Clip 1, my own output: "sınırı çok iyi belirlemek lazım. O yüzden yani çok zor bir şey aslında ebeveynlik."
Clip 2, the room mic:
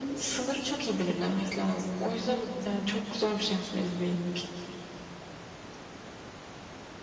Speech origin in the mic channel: echo only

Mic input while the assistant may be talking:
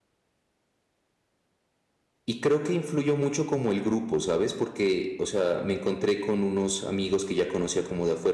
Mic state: user only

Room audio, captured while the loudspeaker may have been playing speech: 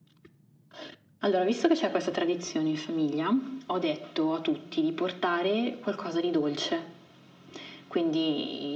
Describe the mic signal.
echo only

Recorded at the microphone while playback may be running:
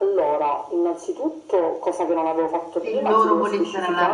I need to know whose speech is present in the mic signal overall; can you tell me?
both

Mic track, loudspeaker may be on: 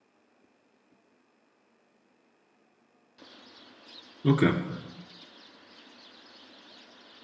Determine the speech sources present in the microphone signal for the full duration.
user only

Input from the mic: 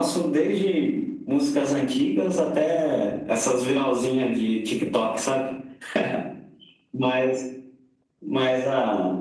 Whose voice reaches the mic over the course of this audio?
echo only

